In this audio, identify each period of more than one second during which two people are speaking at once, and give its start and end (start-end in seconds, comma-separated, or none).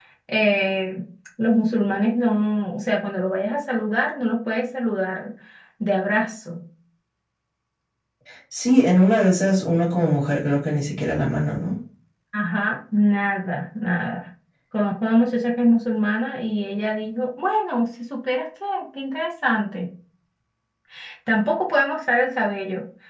none